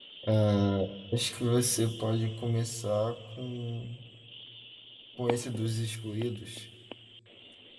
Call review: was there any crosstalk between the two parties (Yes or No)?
No